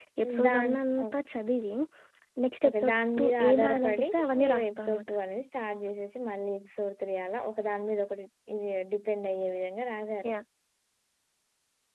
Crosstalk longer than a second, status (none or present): present